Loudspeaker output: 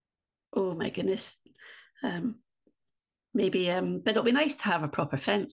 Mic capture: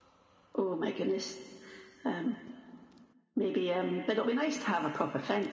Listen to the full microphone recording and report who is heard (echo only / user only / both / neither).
echo only